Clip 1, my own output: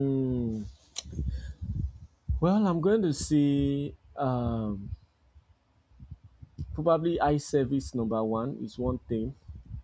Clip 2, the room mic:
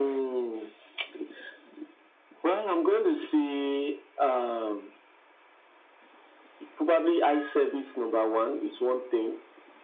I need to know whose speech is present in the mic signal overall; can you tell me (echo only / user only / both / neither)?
echo only